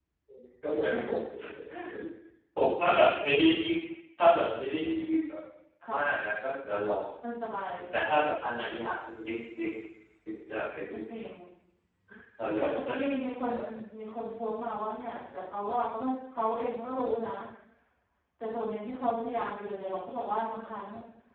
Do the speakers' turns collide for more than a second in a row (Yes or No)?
No